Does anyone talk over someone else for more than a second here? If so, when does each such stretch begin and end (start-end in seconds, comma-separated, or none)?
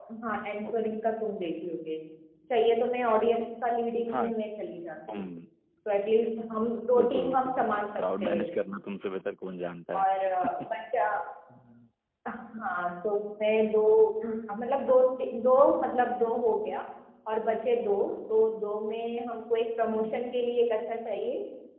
7.0-8.5